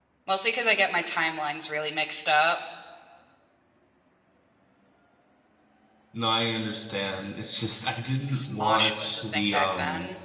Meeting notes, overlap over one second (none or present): present